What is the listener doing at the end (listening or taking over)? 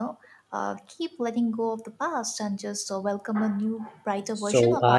taking over